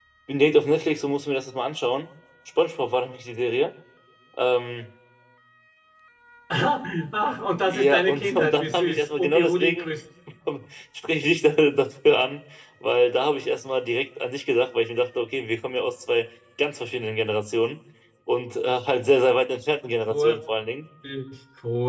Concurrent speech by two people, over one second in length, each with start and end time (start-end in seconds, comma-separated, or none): 7.7-9.9